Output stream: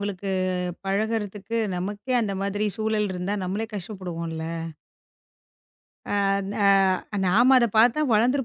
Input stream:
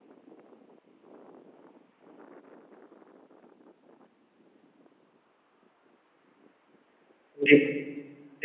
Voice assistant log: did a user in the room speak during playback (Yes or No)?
Yes